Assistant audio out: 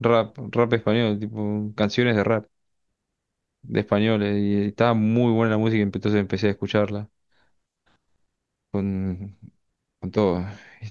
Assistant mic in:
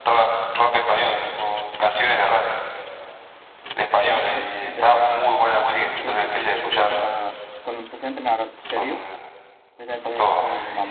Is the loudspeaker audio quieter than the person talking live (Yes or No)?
No